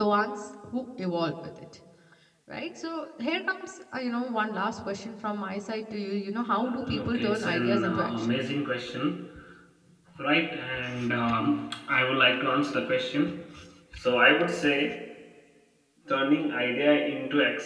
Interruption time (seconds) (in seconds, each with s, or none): 6.9 s